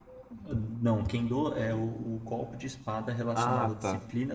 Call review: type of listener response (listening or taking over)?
listening